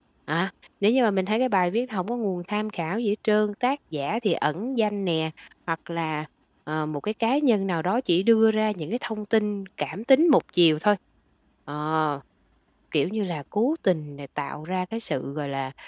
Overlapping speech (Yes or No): No